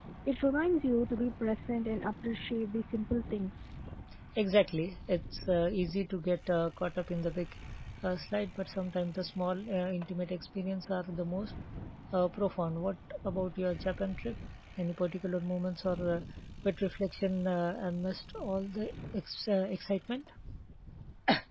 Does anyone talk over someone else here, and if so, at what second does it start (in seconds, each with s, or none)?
none